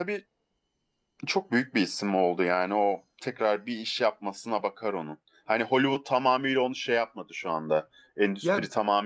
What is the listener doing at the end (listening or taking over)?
listening